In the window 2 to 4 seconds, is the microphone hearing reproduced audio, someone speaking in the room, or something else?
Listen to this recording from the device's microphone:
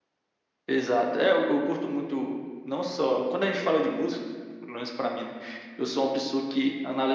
echo only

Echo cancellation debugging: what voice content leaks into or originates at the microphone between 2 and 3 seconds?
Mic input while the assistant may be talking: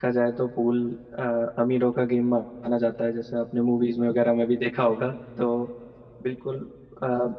user only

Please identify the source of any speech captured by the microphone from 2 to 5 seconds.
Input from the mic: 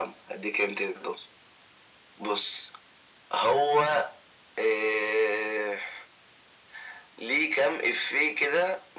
echo only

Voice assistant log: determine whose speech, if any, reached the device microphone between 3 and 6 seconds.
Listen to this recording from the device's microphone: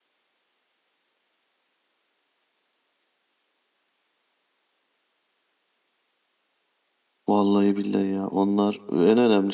neither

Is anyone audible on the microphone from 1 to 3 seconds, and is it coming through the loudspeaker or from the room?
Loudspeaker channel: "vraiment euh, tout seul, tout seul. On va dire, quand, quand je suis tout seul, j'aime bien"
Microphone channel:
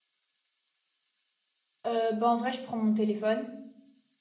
user only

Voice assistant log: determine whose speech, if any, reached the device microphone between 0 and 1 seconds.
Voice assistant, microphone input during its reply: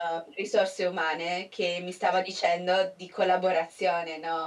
echo only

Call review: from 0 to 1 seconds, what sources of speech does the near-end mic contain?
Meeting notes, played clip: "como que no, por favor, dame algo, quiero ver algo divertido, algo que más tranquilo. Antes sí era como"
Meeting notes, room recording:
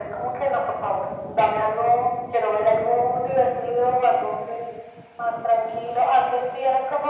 echo only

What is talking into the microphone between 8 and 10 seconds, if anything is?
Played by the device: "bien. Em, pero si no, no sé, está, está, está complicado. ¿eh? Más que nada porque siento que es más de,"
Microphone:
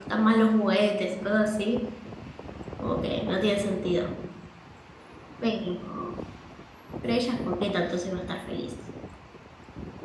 user only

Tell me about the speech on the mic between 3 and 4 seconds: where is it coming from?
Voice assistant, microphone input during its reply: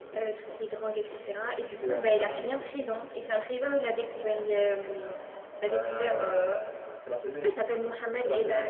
echo only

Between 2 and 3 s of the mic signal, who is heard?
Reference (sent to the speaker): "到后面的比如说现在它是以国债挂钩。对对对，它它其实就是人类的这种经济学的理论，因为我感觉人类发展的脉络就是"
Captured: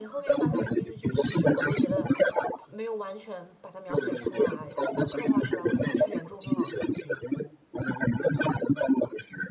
both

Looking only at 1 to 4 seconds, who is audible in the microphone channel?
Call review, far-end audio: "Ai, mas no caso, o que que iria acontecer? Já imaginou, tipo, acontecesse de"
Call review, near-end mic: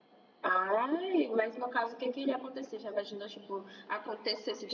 echo only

